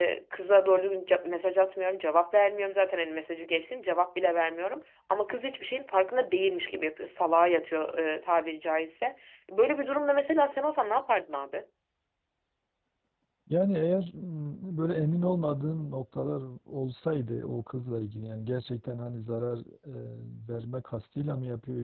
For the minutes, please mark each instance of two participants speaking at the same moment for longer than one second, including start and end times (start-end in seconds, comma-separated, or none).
none